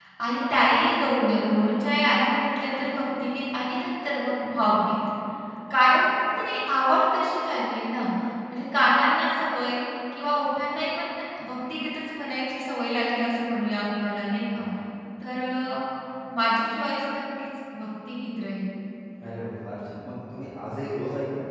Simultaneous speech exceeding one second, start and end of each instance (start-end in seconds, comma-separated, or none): none